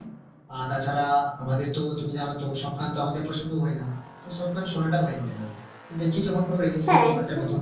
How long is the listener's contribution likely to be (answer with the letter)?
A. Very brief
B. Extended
A